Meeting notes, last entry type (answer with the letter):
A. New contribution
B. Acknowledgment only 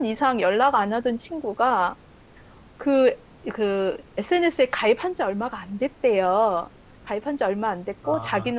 B